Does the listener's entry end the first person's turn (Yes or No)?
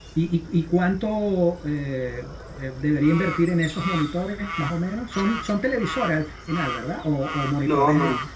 Yes